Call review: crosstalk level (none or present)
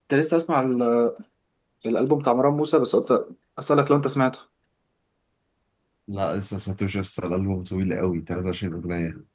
none